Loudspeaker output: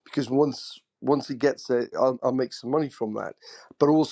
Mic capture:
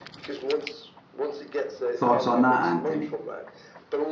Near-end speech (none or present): present